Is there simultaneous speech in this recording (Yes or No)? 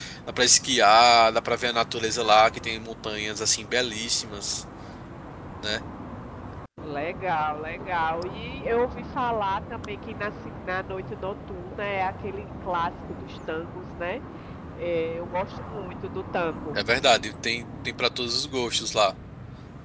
No